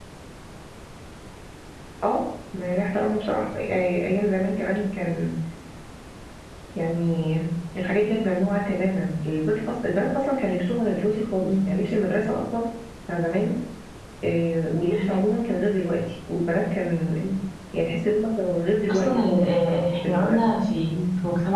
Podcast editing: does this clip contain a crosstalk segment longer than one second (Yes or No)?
Yes